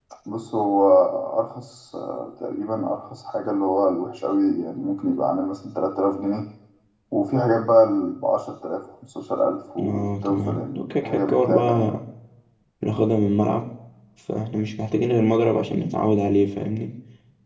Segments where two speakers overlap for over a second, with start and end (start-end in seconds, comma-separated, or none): 9.8-11.9